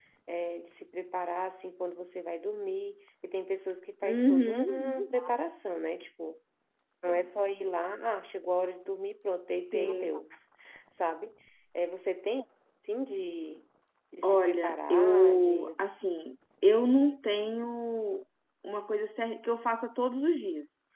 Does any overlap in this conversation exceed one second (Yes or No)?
Yes